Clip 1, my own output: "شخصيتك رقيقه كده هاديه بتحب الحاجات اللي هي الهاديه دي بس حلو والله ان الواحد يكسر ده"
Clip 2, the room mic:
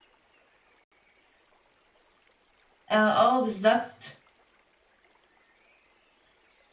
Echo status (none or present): none